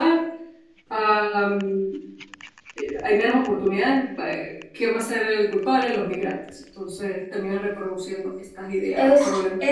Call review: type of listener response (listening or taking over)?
taking over